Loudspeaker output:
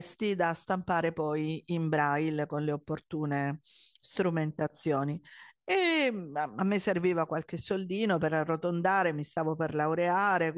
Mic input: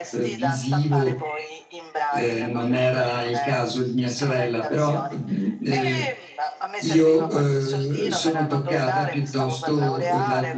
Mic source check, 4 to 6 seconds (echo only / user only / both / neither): both